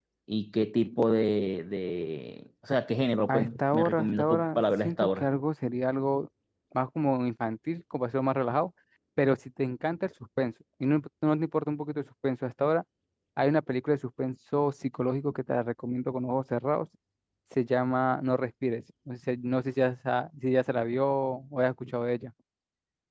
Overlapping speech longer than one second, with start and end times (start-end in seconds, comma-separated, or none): 3.3-5.3